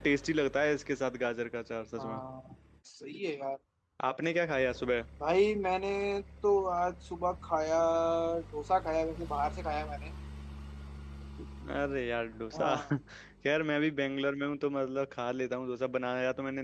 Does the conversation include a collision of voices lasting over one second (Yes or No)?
No